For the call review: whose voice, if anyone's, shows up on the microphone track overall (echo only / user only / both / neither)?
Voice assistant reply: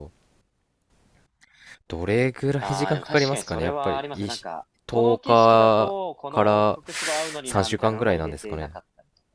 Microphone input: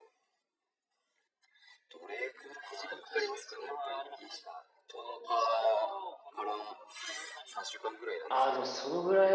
both